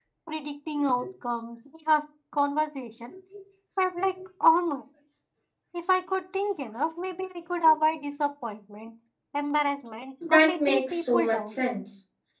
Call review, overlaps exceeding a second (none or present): present